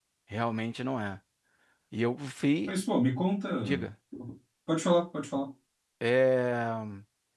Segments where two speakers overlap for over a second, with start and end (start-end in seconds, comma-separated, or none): none